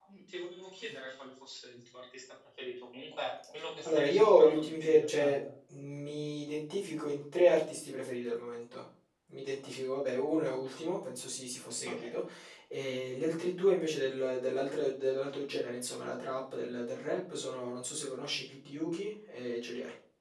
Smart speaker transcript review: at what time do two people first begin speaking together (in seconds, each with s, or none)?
3.8 s